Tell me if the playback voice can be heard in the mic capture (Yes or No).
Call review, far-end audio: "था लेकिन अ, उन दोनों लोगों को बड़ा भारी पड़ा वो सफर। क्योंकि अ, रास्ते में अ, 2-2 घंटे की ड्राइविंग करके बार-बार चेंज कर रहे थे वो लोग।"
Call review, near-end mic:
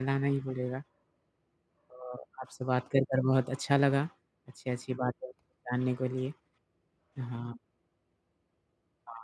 No